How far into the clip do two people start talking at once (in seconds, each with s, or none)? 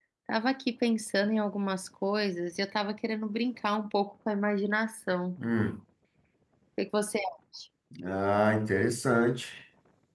none